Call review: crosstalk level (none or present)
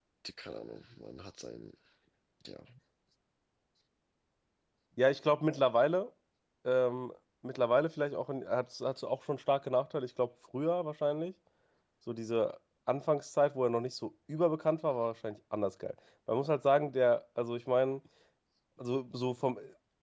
none